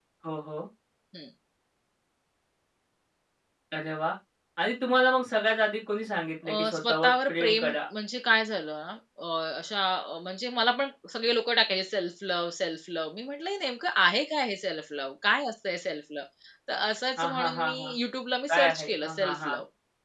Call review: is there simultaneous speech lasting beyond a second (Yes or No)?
Yes